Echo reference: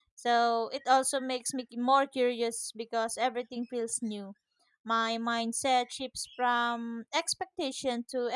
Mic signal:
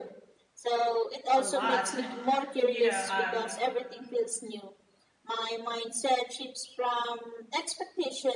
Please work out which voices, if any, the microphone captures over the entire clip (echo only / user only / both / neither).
both